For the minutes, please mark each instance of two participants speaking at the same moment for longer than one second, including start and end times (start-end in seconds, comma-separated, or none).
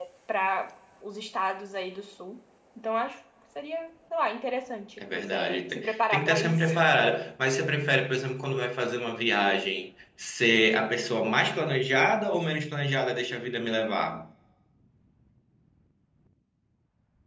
5.0-6.7